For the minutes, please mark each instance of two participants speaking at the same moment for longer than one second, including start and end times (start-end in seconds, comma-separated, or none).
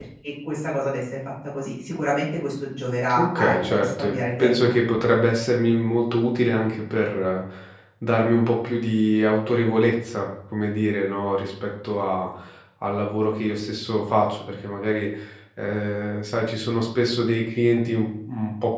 3.1-4.6